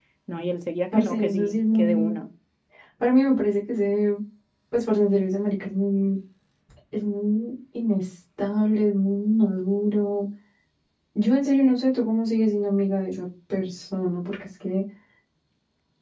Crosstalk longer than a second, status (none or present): present